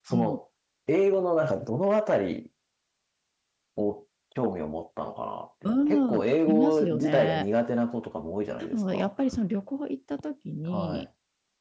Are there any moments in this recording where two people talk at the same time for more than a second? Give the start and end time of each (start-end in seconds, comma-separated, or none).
5.9-7.5